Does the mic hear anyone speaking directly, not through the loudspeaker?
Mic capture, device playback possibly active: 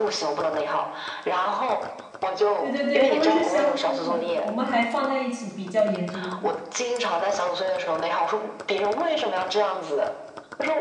Yes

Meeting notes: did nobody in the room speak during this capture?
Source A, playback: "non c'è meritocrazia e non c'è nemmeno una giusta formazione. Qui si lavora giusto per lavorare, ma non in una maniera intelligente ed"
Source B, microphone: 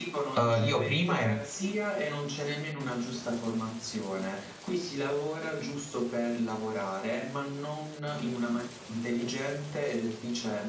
No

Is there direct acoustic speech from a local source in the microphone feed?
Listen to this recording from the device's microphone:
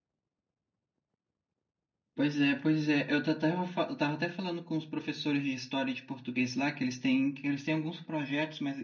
Yes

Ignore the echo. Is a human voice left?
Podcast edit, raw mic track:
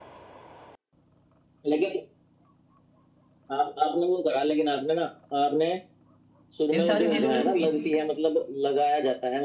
Yes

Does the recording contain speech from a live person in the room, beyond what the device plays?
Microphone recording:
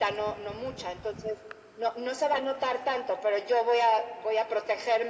No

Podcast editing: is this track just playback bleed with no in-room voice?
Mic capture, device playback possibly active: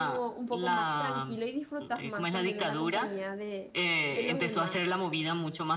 No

